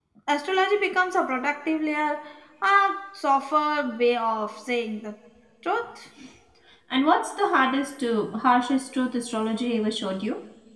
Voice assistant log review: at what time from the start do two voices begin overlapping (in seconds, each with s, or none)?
none